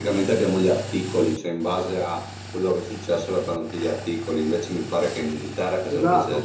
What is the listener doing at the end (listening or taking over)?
taking over